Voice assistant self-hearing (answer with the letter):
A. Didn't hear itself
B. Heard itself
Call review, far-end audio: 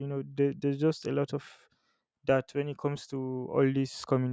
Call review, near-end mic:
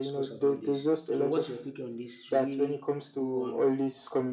B